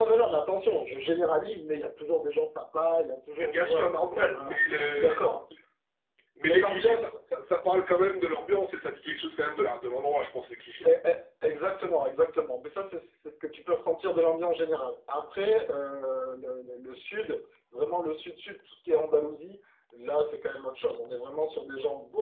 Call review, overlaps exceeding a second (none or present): present